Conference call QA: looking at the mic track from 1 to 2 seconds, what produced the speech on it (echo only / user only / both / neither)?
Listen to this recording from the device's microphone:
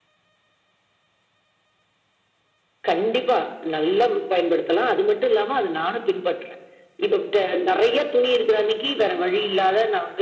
neither